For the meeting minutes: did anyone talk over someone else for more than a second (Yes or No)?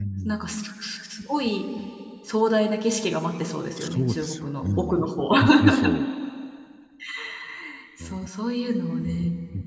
Yes